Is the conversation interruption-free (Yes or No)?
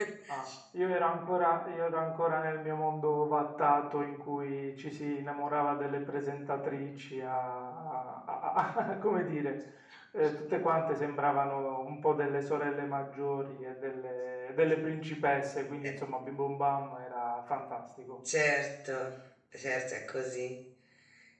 Yes